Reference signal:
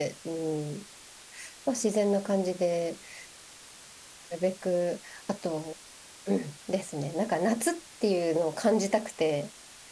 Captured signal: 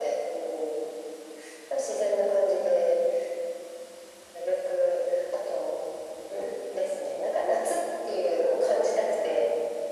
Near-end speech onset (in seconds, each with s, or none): none